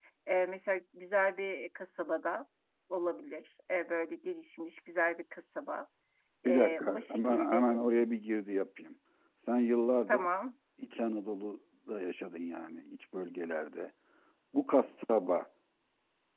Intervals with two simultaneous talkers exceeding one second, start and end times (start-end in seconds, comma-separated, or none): 6.5-7.7